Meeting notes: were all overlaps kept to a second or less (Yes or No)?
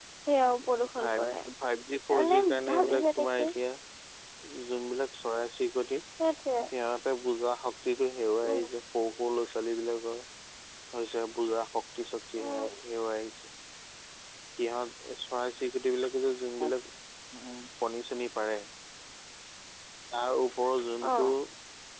No